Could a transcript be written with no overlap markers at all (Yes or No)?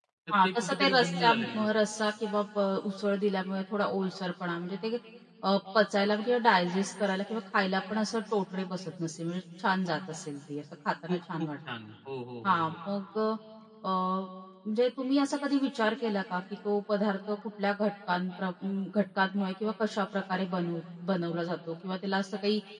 No